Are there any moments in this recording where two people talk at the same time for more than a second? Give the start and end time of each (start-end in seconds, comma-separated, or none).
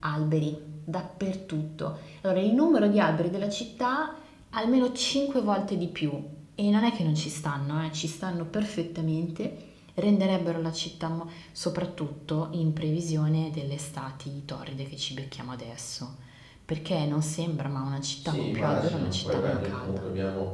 18.2-20.0